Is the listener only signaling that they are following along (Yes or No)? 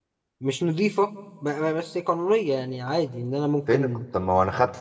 No